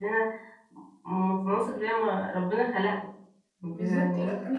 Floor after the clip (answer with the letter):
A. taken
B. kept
A